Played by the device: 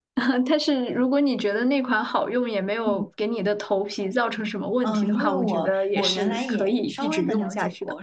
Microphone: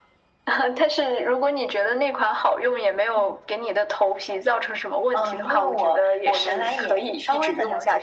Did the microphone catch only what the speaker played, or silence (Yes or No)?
Yes